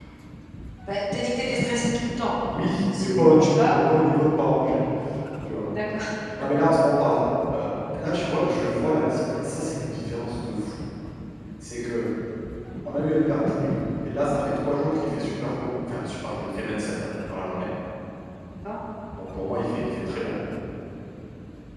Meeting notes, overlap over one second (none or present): present